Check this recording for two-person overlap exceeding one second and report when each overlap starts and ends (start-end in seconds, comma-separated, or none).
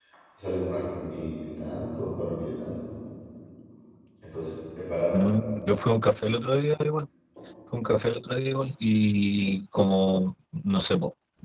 none